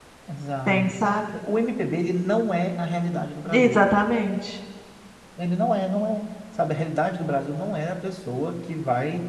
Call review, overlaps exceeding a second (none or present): none